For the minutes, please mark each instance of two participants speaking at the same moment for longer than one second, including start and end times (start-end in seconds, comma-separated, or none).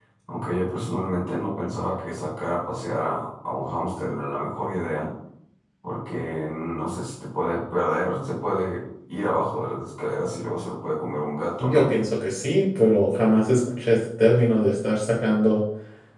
none